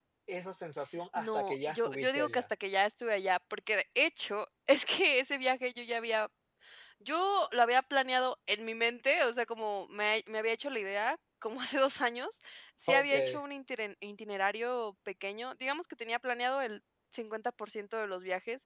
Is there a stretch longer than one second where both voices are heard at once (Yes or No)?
Yes